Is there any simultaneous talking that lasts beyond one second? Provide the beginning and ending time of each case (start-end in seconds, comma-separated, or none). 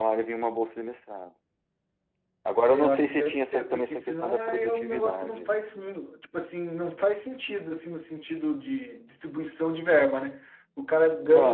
2.6-5.6